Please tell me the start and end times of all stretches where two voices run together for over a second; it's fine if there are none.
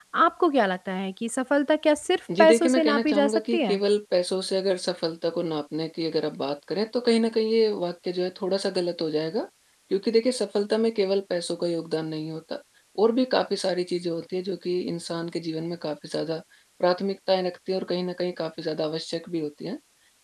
2.4-3.8

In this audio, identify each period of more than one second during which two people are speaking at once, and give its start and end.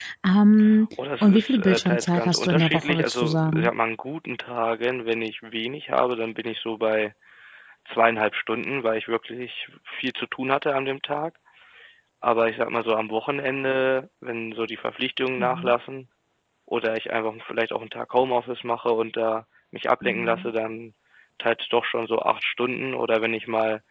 1.2-3.7

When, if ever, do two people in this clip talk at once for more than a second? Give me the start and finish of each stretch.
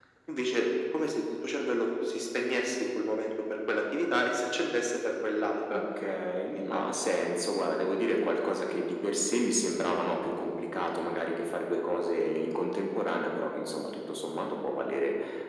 none

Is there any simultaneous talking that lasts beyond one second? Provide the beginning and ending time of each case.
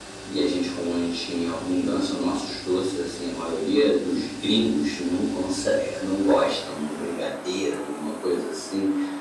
none

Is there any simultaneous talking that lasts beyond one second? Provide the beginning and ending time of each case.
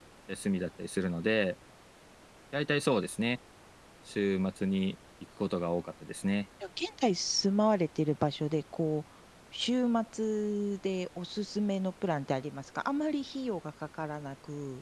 none

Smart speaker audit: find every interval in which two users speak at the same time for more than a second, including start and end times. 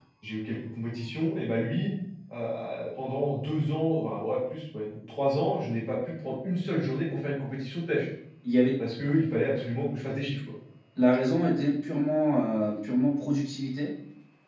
none

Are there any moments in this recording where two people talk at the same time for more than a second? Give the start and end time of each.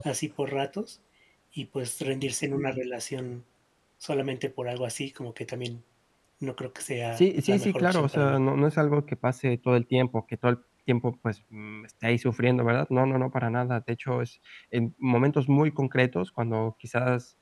7.1-8.4

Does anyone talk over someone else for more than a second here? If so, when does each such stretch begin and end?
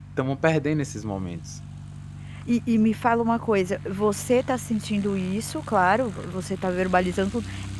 none

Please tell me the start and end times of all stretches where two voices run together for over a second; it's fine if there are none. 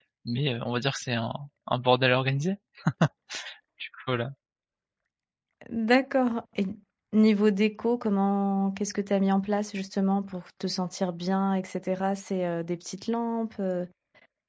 none

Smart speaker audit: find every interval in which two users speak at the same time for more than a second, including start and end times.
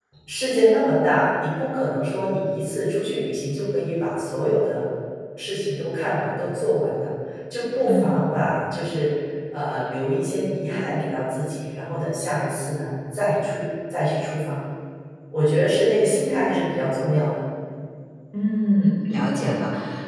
none

